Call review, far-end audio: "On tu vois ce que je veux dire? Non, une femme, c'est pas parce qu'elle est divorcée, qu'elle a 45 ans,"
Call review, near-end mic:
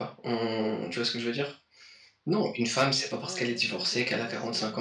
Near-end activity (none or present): present